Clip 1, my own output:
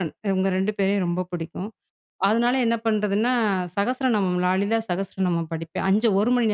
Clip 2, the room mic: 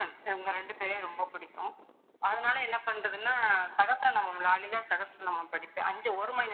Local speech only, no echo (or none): none